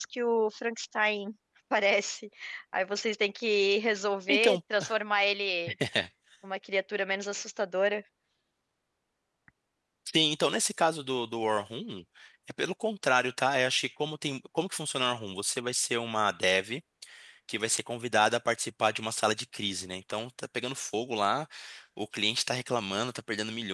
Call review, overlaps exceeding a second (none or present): none